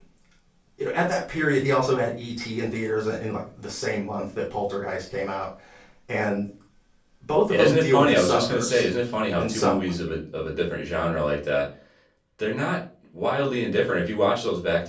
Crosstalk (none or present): present